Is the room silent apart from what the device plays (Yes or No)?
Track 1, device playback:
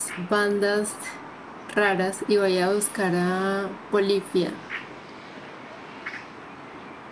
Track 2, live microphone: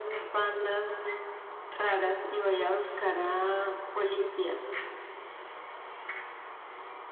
Yes